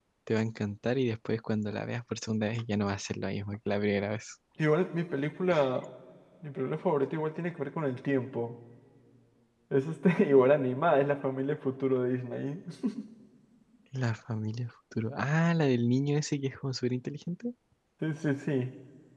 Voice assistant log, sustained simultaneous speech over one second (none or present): none